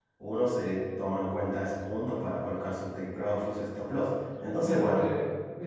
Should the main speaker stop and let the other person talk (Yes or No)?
Yes